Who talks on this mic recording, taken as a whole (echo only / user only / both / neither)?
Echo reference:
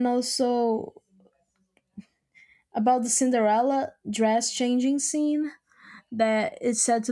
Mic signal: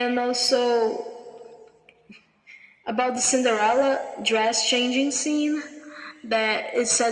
echo only